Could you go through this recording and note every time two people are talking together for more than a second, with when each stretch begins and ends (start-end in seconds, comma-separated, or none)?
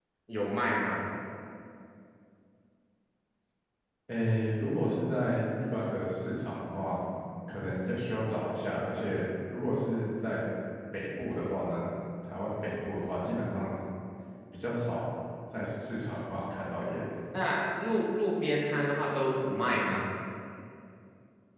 none